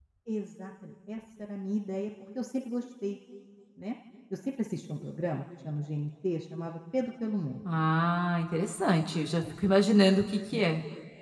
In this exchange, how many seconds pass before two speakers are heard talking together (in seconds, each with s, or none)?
none